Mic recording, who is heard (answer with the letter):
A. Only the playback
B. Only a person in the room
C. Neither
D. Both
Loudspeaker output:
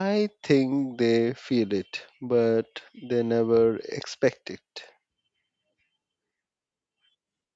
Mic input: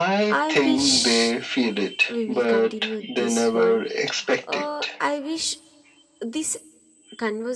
D